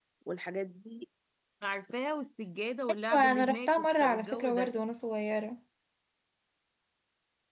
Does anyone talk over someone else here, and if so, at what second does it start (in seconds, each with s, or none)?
3.1 s